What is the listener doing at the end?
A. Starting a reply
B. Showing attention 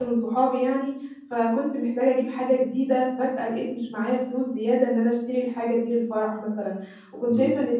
B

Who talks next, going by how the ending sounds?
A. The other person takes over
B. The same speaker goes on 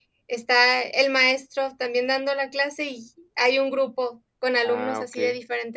B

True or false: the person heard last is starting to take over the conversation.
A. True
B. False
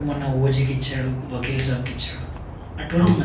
B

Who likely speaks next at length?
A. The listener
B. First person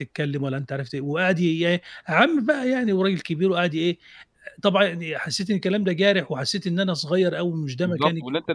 A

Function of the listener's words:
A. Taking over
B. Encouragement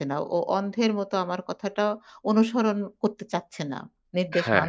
A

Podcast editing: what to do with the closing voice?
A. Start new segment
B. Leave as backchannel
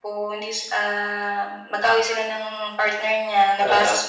B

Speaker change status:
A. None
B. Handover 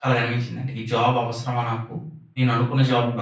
A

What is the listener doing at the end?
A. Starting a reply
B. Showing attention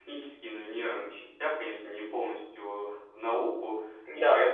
B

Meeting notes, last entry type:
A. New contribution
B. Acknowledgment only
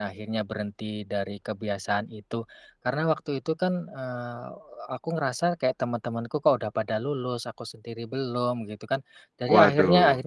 B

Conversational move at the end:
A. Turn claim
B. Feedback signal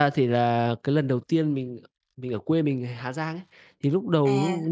B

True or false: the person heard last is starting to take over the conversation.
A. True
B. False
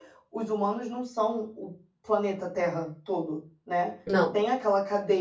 B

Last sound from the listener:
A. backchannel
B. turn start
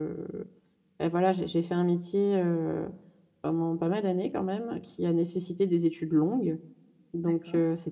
A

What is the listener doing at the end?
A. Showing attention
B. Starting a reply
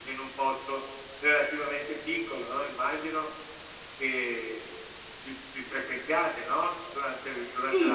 B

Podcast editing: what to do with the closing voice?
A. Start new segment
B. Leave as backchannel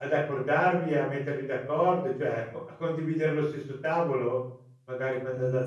A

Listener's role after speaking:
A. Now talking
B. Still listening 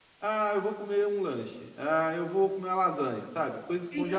A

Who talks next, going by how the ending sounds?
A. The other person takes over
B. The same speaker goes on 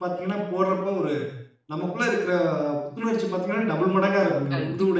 A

